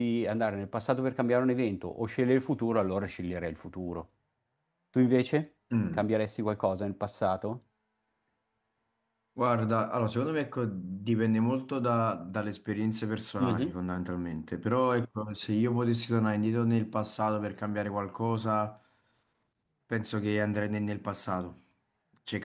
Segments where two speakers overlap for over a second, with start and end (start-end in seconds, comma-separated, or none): none